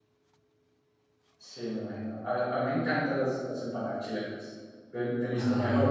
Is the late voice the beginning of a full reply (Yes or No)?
No